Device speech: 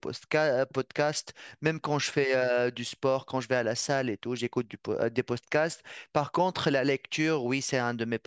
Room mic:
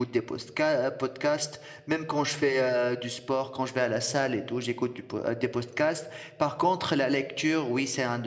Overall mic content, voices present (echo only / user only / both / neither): echo only